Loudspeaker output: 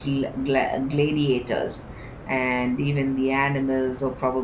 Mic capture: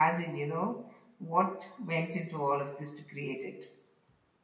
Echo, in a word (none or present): none